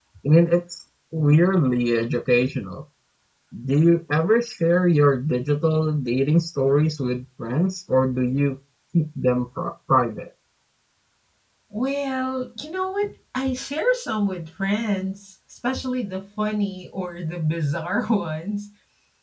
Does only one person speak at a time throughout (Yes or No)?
Yes